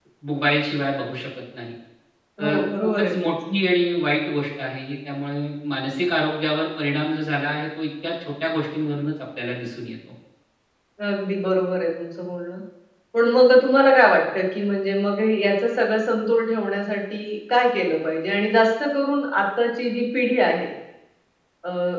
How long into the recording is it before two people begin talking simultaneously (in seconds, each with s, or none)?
2.4 s